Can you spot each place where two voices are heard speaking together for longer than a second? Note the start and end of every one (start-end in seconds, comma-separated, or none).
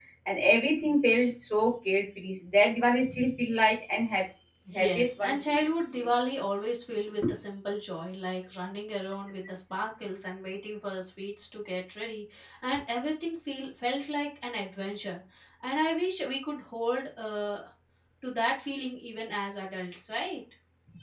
4.8-6.1